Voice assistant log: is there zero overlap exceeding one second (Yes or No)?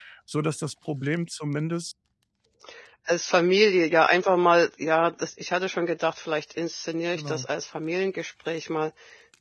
Yes